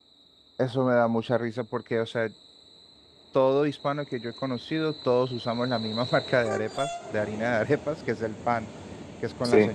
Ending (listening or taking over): listening